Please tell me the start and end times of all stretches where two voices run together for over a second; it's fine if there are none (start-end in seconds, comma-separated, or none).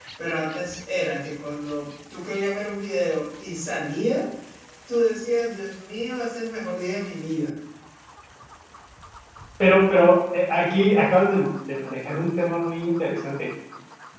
none